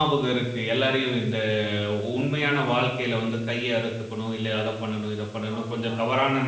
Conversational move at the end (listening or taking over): listening